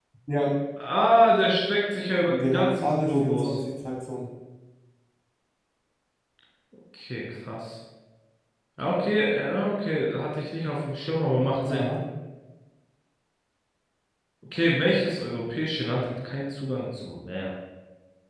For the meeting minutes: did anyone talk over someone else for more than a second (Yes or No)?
Yes